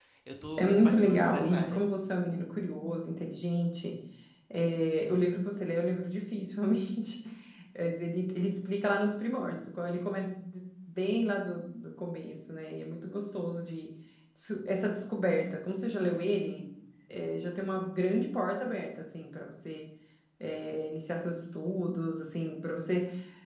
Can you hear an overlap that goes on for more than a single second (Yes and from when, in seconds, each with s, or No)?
Yes, from 0.6 s